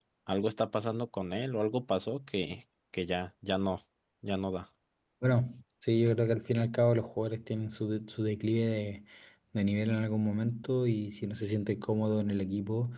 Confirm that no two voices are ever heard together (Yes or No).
Yes